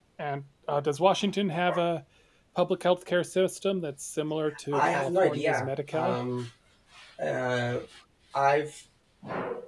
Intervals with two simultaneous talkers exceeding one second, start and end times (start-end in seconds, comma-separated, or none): 4.7-6.2